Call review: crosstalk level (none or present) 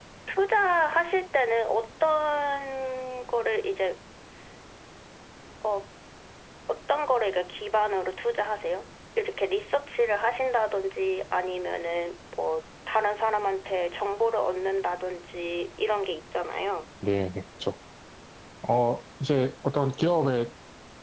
none